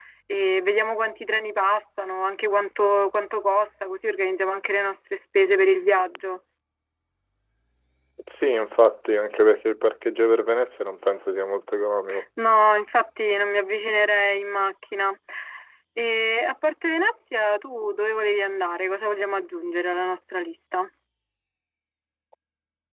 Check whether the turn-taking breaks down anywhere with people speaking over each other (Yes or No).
No